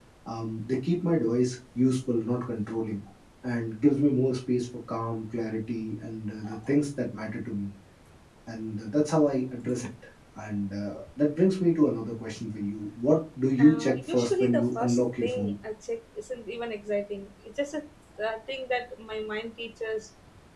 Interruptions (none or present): present